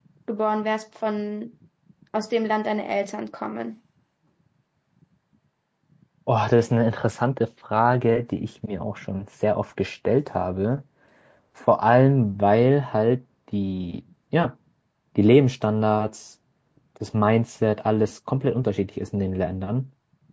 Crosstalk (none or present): none